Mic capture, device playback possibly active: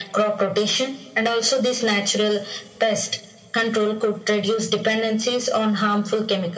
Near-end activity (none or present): none